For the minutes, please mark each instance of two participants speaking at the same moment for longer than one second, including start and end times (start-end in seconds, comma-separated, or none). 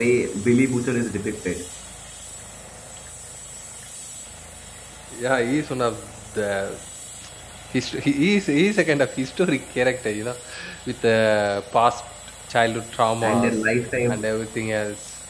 none